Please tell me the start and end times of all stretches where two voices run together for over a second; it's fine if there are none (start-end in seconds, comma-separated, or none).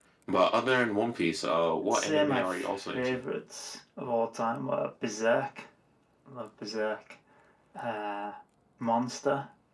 1.9-3.2